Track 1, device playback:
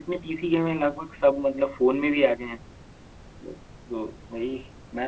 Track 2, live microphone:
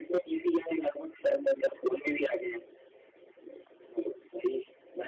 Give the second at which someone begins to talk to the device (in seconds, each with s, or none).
none